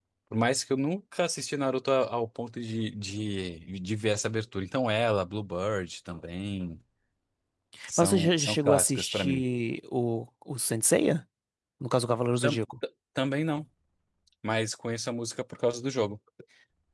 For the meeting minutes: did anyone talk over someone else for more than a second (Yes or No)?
Yes